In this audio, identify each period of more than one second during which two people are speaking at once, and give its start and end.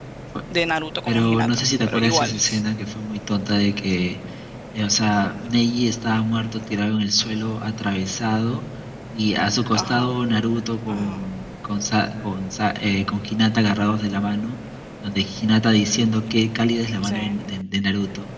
1.1-2.4

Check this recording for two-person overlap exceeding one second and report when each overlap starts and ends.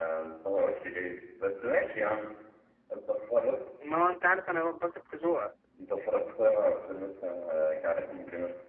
none

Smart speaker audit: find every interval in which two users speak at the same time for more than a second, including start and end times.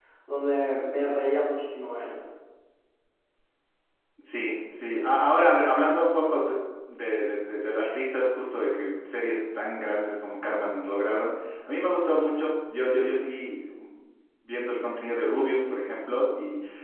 none

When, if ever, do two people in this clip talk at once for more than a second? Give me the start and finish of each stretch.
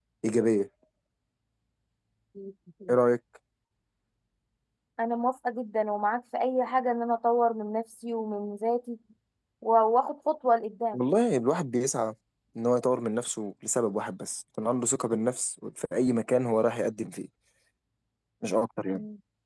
none

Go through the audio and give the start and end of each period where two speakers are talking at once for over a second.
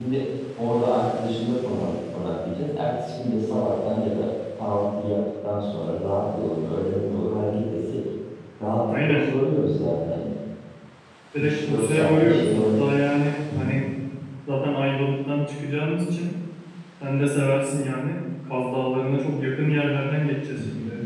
11.4-12.9

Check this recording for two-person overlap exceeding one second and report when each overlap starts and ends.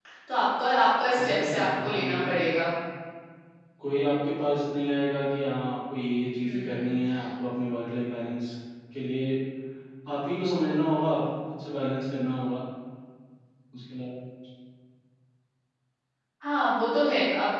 1.2-2.4

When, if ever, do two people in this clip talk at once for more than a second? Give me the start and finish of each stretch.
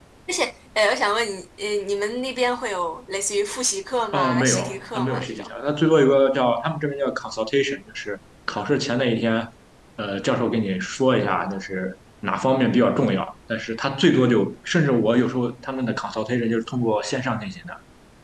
4.1-5.5

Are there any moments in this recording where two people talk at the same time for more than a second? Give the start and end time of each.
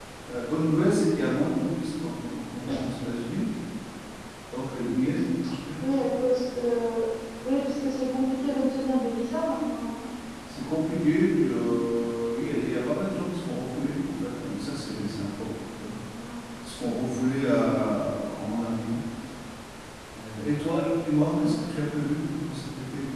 none

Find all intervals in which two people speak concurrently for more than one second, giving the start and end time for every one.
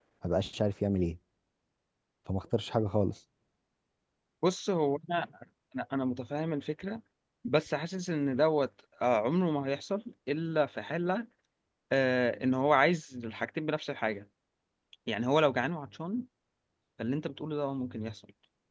none

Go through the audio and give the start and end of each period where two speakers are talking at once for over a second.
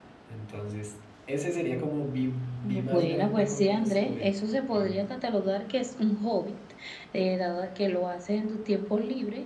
2.9-4.3

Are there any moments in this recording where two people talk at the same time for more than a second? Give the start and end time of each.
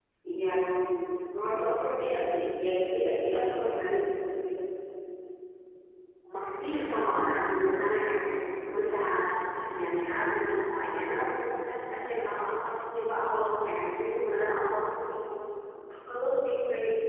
none

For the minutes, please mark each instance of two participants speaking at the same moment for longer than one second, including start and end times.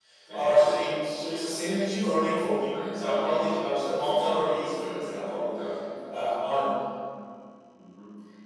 2.4-5.4

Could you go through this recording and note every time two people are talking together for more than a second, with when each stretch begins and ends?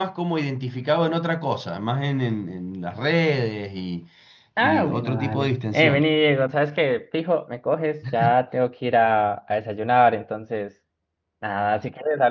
4.6-6.1

